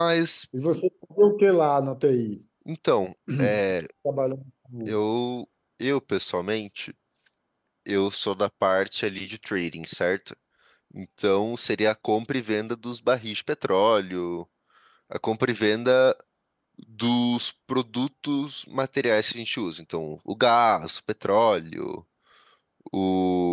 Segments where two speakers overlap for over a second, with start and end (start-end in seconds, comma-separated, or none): none